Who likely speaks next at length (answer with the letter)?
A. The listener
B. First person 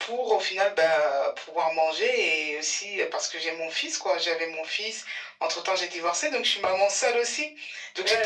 A